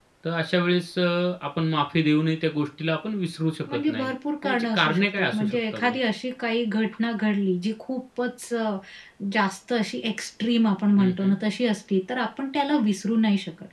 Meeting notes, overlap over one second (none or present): present